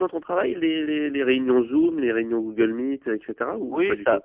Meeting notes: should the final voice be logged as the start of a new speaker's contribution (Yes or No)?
Yes